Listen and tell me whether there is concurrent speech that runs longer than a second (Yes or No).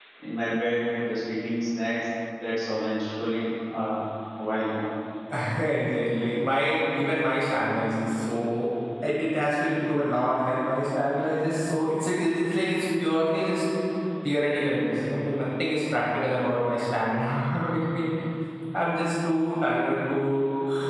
No